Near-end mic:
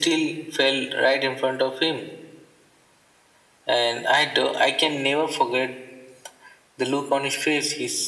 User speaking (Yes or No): No